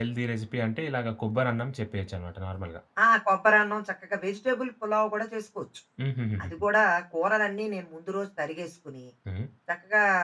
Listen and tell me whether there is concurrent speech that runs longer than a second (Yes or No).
No